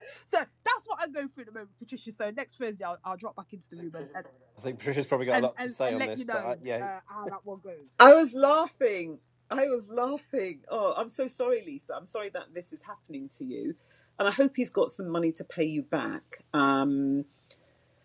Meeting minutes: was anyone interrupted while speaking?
Yes, from 5.3 s

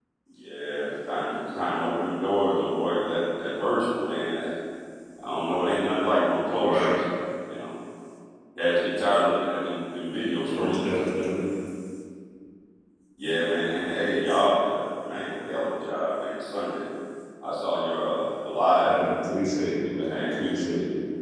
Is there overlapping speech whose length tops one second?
No

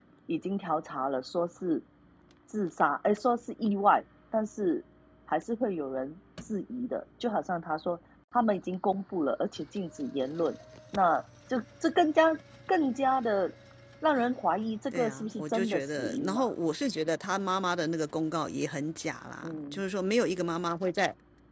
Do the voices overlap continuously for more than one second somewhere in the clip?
Yes, from 14.9 s

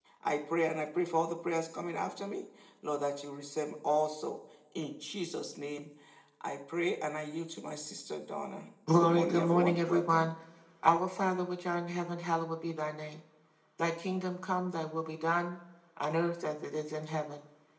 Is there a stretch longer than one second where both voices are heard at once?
Yes, from 8.9 s

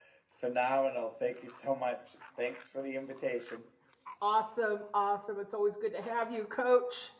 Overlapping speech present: No

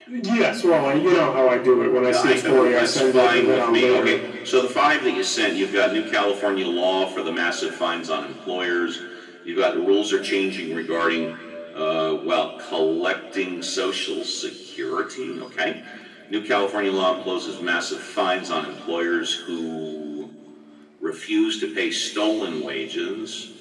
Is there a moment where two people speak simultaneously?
Yes, from 2.1 s

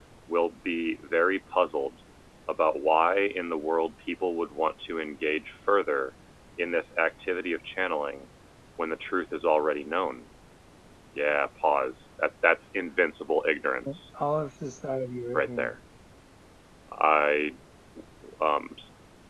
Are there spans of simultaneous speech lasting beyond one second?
No

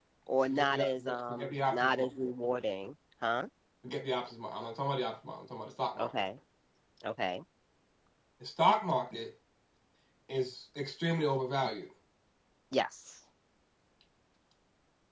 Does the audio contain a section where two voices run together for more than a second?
Yes, from 0.5 s

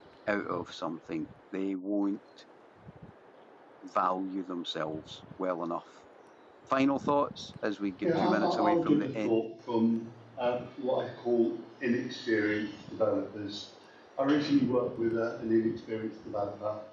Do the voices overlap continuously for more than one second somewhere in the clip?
Yes, from 8.0 s

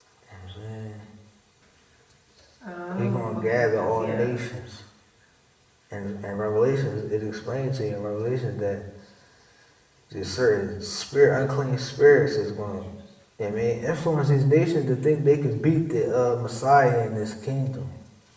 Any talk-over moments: Yes, from 3.0 s

